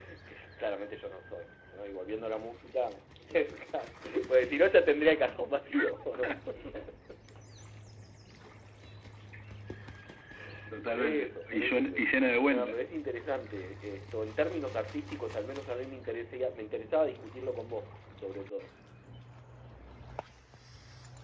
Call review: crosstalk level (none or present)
present